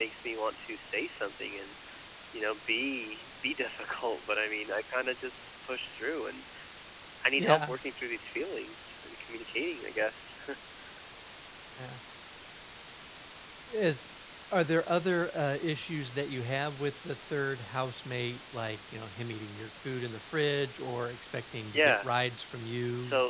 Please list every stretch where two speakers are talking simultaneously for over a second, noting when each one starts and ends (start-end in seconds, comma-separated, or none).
none